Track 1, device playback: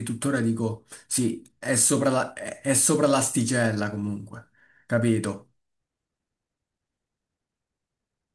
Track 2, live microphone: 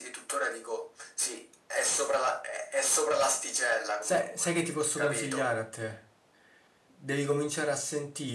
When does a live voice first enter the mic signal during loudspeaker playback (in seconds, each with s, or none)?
4.0 s